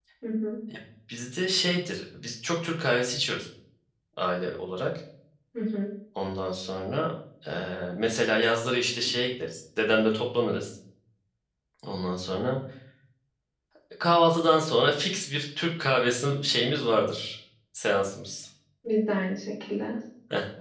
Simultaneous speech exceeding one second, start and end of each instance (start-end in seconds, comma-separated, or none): none